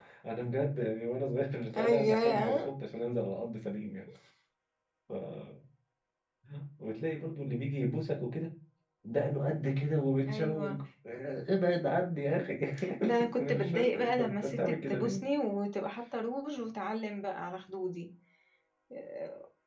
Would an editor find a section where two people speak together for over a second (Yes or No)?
Yes